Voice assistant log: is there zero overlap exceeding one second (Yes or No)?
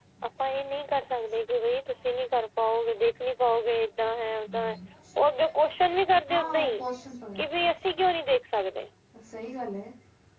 Yes